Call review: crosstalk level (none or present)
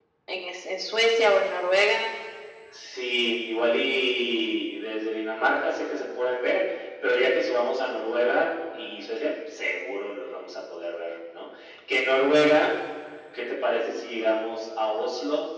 none